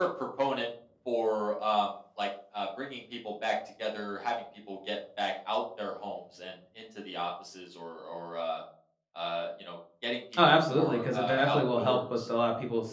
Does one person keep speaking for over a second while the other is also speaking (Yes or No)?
Yes